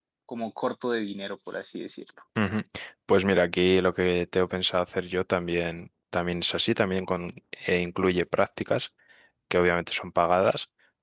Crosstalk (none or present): none